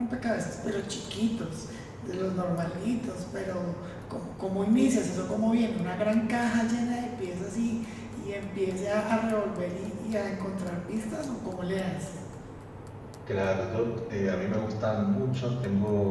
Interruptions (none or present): none